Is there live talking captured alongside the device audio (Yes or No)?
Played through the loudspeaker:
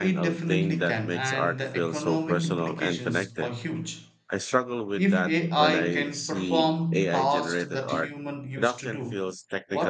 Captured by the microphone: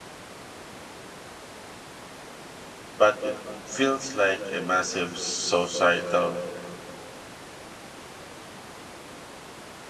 Yes